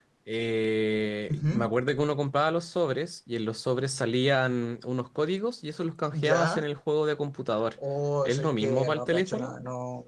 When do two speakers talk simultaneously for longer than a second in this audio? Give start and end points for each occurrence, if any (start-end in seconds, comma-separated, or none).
8.2-9.5